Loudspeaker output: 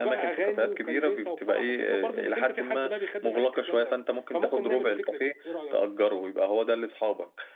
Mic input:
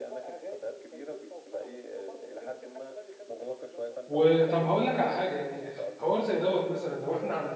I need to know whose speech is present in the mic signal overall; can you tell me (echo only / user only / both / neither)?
both